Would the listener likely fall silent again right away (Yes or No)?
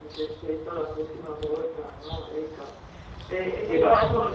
Yes